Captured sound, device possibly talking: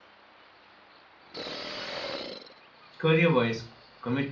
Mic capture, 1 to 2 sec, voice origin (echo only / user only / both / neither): neither